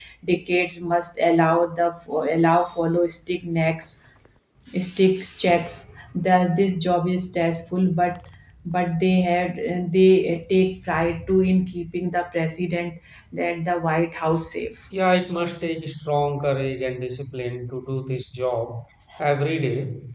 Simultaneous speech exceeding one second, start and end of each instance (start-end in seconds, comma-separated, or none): none